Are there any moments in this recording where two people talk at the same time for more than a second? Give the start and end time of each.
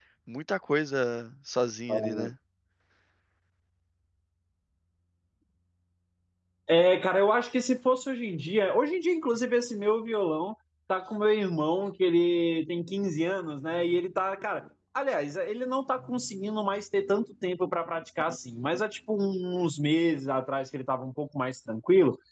none

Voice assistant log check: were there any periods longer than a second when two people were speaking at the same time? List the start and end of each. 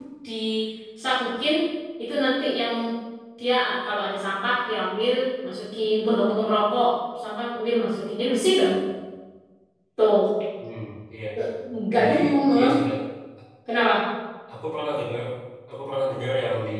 none

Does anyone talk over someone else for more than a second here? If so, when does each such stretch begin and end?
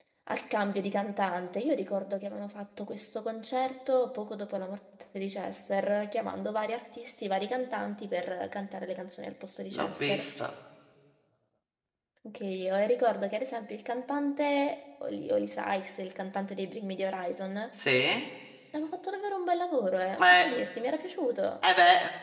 none

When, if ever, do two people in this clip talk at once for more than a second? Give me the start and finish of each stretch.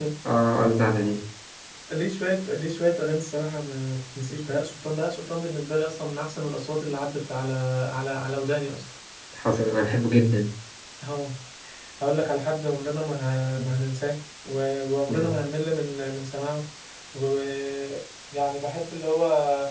none

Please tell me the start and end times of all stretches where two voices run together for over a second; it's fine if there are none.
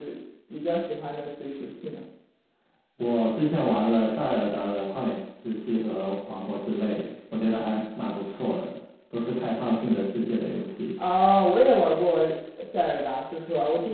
none

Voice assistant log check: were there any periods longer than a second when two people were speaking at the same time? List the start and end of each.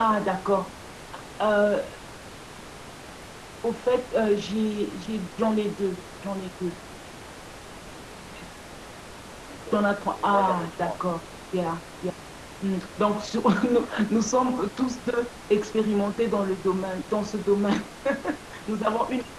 9.7-11.0

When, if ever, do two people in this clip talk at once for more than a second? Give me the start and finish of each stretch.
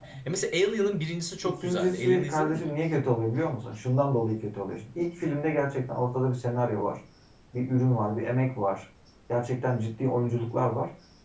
1.4-2.7

